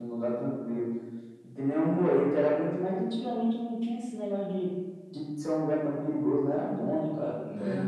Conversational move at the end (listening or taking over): taking over